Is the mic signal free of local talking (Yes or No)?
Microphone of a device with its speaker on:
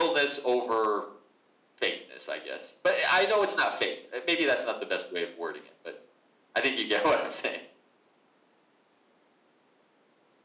No